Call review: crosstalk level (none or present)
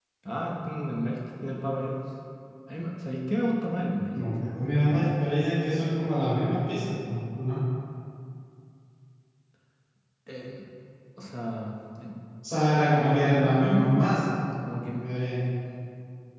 present